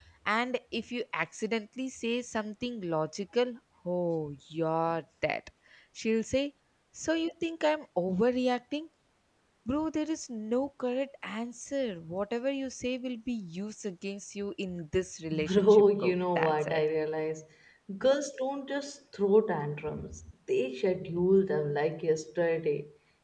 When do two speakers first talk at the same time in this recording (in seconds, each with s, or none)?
15.3 s